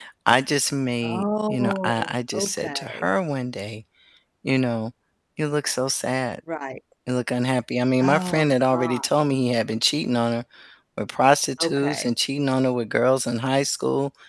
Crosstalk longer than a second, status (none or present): present